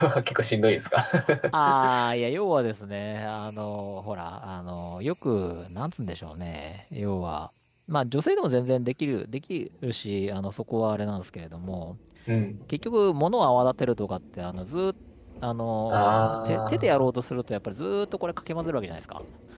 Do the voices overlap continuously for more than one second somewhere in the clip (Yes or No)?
Yes